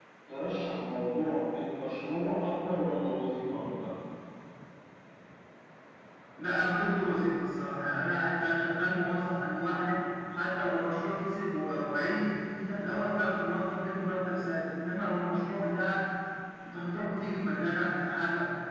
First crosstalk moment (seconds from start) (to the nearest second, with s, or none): none